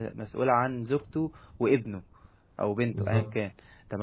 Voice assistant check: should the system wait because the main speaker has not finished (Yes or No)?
Yes